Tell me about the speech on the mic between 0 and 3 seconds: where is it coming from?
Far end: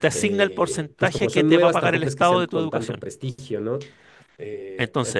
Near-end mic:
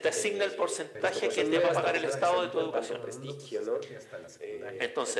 both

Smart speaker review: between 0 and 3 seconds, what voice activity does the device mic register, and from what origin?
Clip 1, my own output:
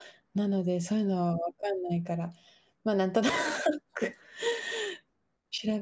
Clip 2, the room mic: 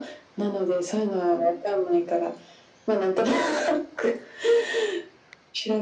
echo only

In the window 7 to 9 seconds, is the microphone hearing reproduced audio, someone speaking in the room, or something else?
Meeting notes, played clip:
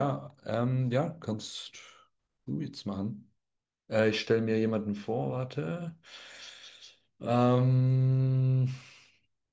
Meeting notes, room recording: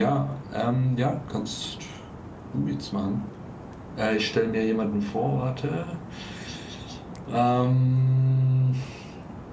echo only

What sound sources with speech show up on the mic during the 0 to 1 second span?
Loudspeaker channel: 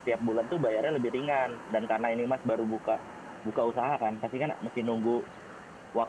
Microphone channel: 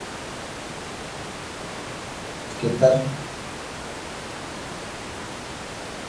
neither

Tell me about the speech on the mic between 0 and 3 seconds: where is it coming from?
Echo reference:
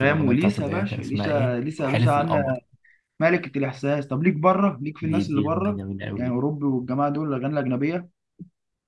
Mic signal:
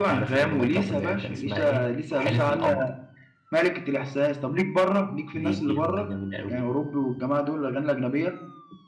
echo only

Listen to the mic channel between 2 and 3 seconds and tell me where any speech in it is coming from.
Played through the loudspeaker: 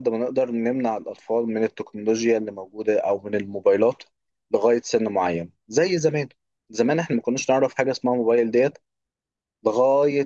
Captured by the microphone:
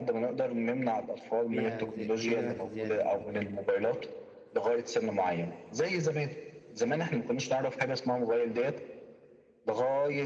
both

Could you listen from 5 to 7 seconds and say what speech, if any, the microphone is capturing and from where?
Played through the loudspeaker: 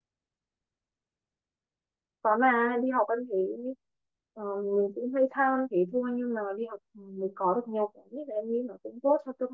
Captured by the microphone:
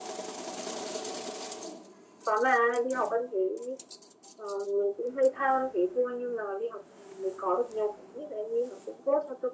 echo only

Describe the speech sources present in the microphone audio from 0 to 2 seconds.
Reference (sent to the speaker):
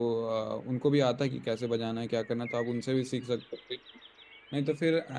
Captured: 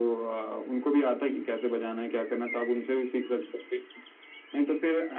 echo only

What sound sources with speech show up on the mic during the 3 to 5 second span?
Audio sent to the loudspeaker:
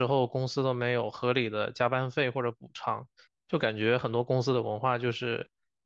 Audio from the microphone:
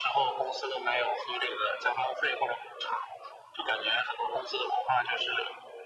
echo only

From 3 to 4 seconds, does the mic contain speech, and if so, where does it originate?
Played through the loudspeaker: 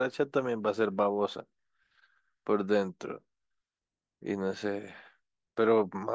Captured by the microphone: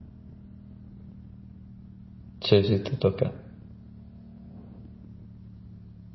user only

